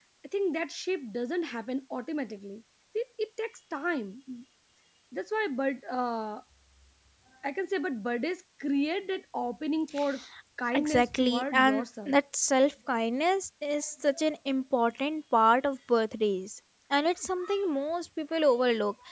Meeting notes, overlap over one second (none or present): present